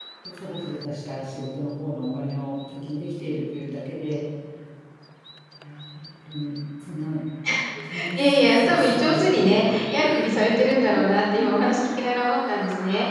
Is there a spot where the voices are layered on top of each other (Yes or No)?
Yes